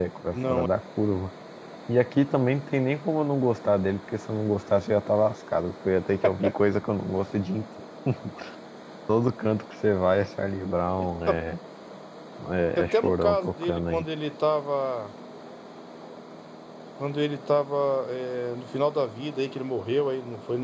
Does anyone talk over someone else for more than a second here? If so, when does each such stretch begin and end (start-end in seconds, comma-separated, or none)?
12.8-14.1